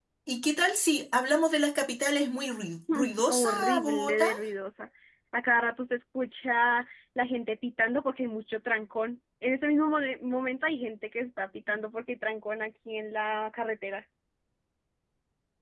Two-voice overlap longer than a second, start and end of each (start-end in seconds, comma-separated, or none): 2.9-4.3